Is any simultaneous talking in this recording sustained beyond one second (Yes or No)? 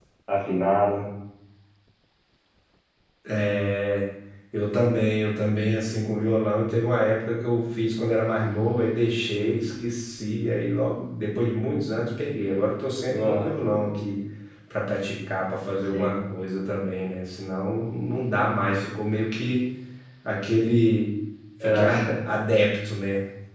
No